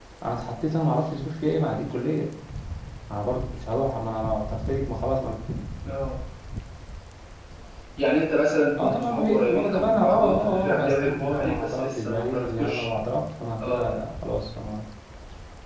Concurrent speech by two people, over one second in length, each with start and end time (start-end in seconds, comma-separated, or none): 8.8-12.8